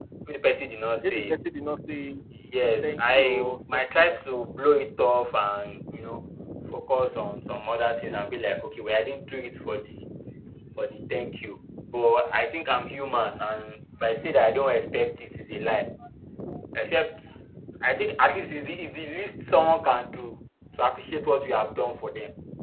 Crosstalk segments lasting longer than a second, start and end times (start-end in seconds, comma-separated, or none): 2.8-4.5